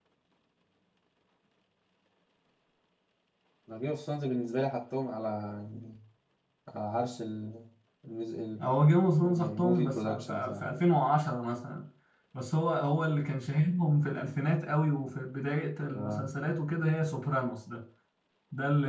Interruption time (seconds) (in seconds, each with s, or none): 9.2 s